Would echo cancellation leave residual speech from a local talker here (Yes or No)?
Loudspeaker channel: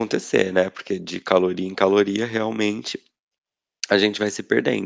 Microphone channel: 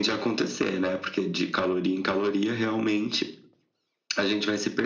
No